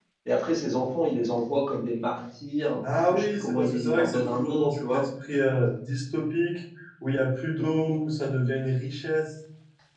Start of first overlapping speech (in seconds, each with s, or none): 3.1 s